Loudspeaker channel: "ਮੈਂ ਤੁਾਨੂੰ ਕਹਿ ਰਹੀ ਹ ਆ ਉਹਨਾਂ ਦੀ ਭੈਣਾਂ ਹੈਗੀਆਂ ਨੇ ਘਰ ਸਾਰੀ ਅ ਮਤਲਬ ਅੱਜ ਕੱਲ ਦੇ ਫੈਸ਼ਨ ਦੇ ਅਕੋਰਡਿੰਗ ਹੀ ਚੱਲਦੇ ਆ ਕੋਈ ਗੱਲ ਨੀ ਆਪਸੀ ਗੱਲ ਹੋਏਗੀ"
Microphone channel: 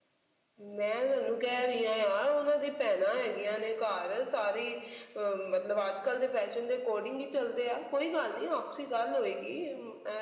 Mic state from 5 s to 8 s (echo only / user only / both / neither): echo only